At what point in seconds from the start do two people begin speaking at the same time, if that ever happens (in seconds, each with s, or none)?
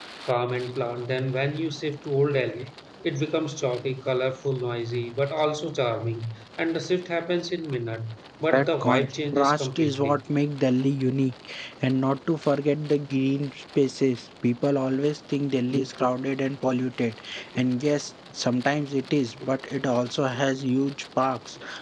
8.5 s